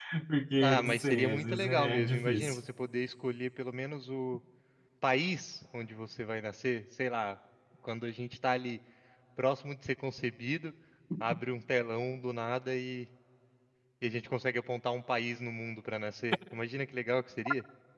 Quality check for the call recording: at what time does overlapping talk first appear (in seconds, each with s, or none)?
0.6 s